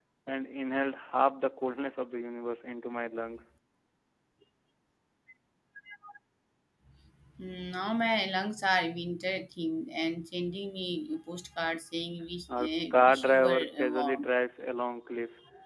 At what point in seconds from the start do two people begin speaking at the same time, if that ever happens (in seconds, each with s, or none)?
12.5 s